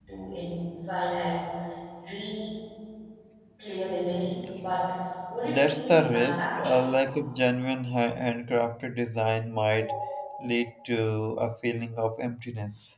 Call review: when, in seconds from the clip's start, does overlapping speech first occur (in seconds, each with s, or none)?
5.4 s